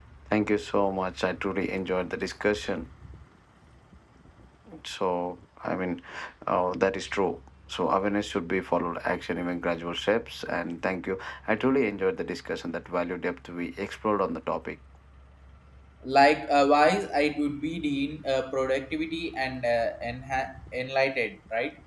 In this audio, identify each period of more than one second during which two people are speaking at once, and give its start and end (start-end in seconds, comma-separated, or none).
none